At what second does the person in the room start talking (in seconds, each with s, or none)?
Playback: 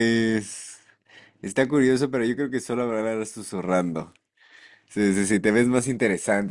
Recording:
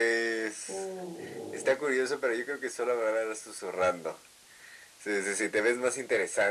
0.7 s